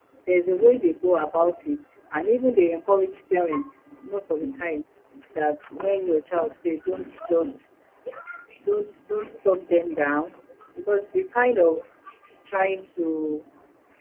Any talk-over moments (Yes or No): No